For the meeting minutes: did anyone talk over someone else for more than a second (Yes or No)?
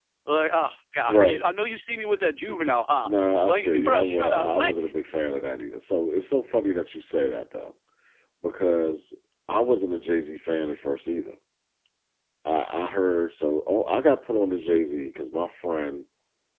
Yes